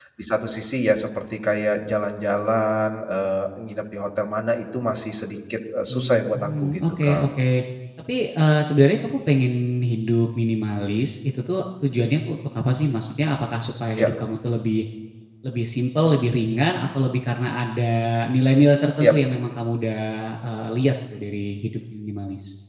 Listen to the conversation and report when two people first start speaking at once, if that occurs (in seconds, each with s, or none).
5.9 s